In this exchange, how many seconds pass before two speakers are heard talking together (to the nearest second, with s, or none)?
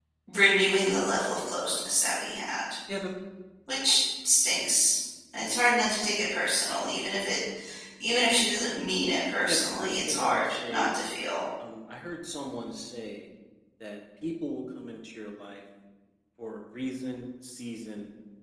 9 s